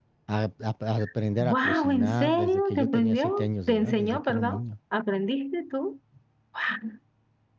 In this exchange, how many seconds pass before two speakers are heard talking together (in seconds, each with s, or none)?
1.4 s